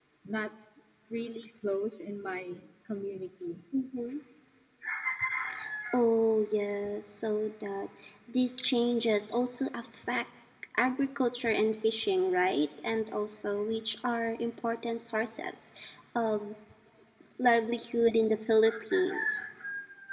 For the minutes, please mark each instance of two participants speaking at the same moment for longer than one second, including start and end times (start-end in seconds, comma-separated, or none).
none